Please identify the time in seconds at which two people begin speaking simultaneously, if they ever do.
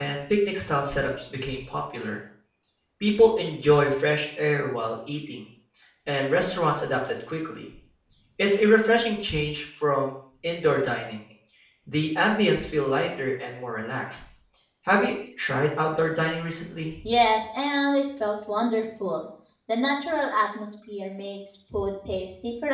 none

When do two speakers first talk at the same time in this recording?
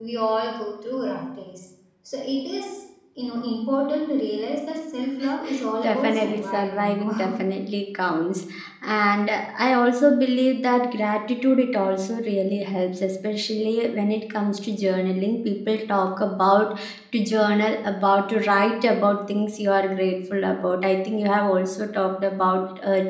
5.8 s

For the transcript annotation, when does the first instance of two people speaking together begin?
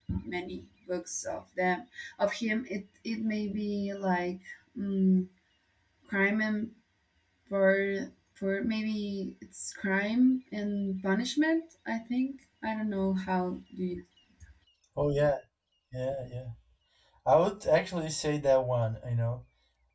none

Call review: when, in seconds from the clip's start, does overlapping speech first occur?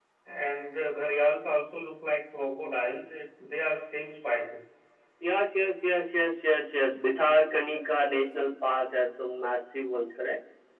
none

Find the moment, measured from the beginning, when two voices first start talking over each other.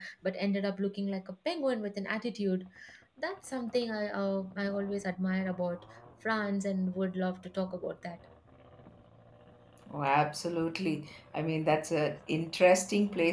none

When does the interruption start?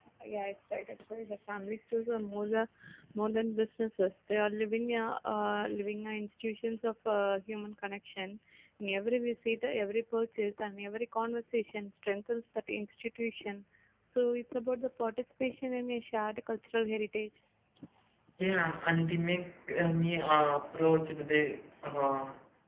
none

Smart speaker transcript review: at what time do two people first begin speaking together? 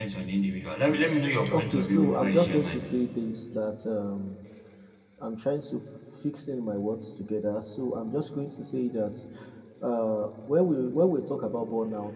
1.5 s

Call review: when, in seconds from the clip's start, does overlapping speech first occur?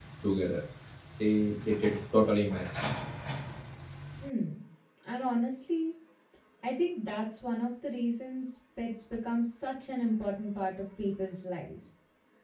none

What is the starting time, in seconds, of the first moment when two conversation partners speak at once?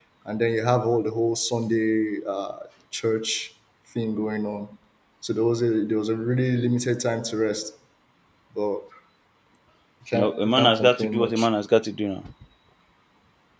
10.1 s

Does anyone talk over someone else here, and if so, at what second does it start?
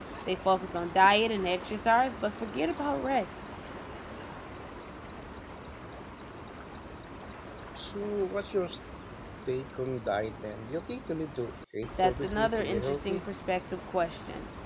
12.0 s

